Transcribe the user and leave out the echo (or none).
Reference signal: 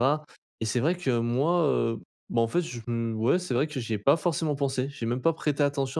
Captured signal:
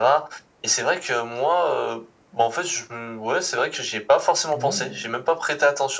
Ouais, ouais.